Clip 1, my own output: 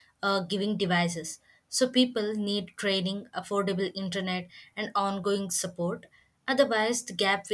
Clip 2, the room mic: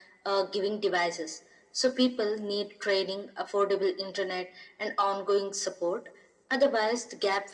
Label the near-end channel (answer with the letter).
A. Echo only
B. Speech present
A